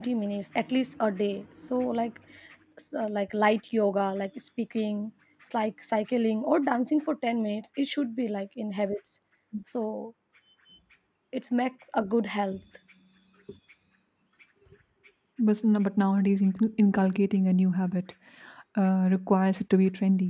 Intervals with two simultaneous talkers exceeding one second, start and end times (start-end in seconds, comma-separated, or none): none